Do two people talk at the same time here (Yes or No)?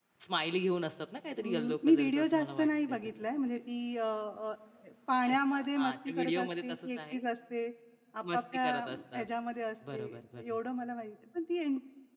Yes